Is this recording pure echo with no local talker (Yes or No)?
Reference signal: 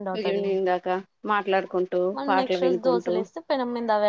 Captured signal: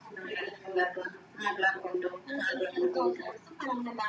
Yes